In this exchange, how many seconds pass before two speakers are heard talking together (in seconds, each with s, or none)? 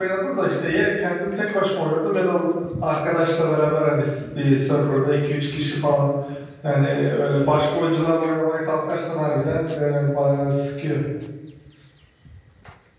none